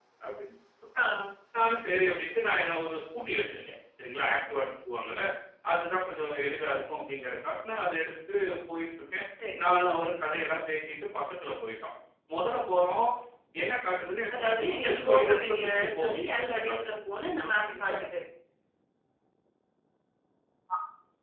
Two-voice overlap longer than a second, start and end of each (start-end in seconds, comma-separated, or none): 14.3-16.9